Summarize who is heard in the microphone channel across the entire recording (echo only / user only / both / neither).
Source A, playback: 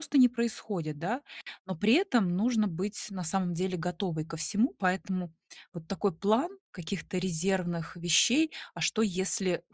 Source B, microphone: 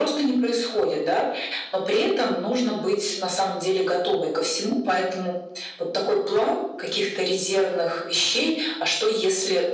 echo only